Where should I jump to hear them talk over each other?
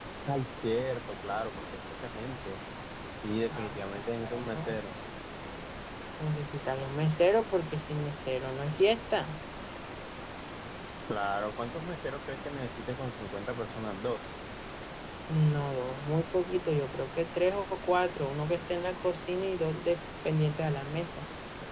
3.5 s

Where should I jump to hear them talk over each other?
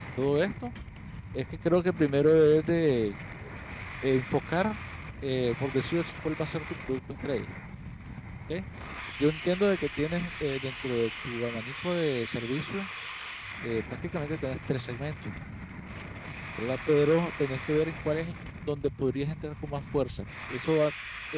none

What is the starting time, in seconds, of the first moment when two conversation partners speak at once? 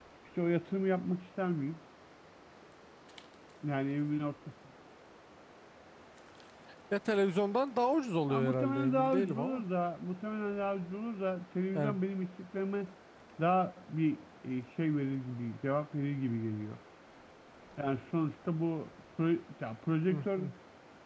8.3 s

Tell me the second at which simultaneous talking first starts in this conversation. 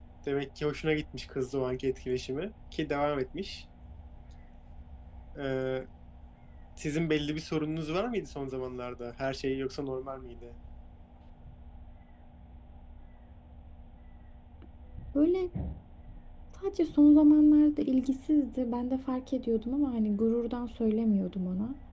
none

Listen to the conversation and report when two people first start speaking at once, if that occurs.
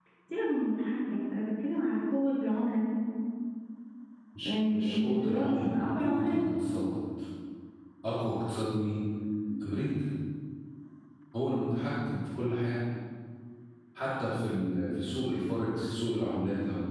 4.4 s

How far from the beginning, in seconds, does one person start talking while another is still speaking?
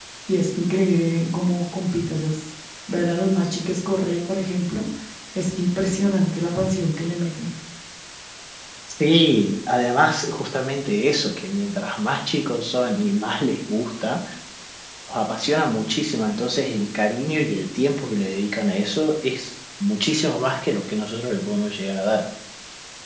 none

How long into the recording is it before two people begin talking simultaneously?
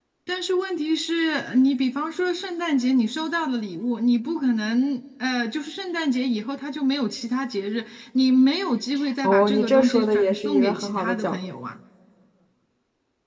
9.2 s

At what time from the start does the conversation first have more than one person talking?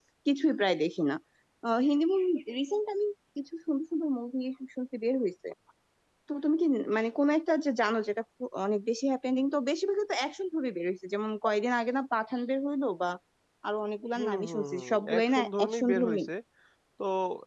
14.2 s

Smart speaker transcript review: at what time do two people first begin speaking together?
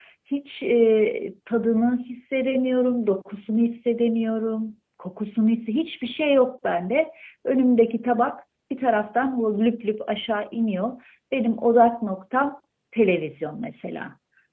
none

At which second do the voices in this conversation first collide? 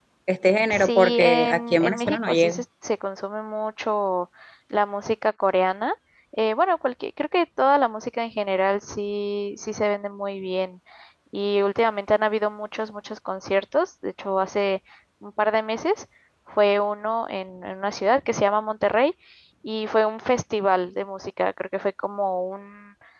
0.7 s

